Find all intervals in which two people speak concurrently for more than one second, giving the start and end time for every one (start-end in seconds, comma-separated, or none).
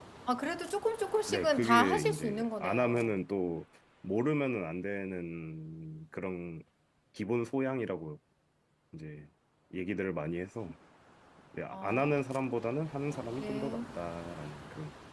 1.3-3.1